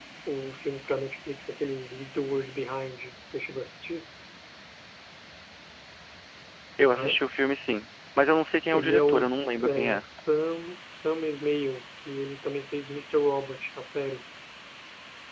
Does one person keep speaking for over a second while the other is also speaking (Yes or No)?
Yes